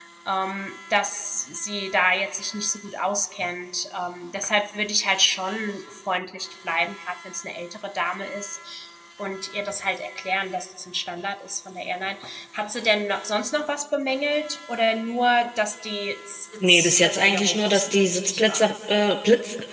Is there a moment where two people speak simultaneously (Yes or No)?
Yes